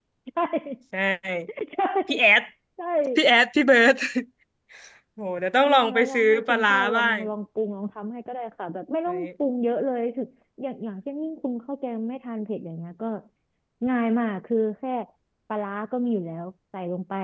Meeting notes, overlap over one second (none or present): present